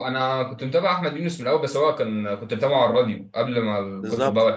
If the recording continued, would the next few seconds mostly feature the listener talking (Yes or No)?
Yes